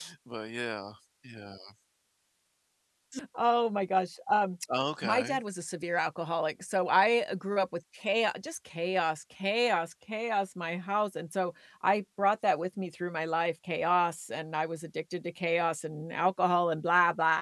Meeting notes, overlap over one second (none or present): none